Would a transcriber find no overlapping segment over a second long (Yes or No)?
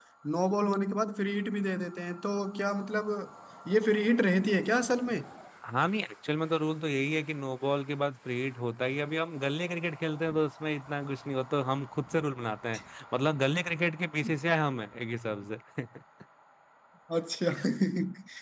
Yes